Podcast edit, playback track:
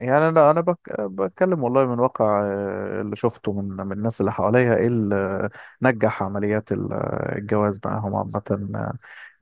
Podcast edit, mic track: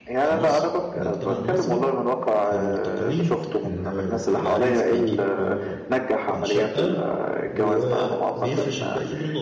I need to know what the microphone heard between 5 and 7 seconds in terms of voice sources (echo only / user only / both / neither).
both